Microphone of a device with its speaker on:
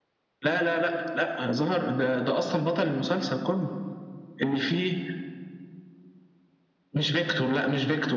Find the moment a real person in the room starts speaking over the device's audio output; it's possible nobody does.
none

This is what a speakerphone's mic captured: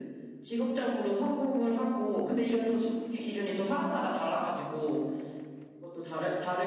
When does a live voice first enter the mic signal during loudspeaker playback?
none

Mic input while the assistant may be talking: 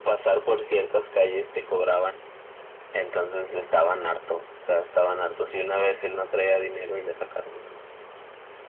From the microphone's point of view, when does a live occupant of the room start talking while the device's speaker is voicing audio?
none

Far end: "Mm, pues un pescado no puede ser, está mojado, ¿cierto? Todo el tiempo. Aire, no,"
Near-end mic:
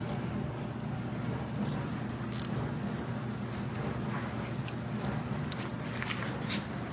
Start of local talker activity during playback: none

